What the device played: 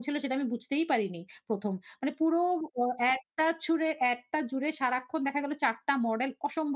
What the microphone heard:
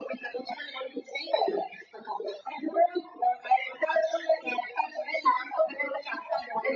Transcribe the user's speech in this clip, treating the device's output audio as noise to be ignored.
none

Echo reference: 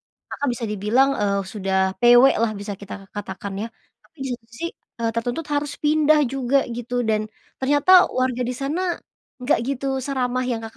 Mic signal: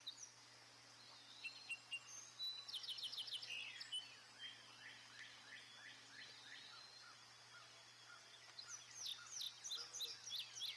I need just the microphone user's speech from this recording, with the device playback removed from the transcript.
none

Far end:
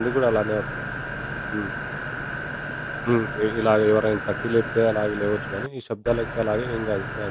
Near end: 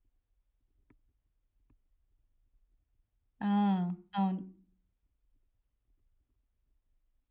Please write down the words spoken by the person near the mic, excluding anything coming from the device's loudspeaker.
ఆ! అవును.

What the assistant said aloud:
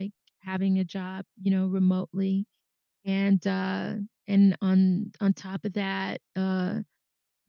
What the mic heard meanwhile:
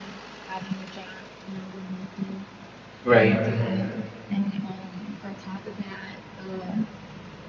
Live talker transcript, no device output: Right.

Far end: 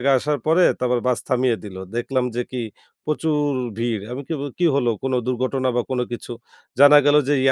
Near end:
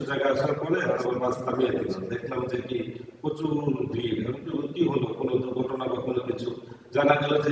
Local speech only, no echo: রাস্তা বন্ধ করে দেয়া হয়েছে।

